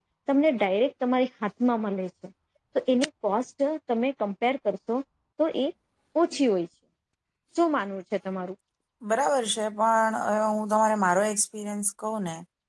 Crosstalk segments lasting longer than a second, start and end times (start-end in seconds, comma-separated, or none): none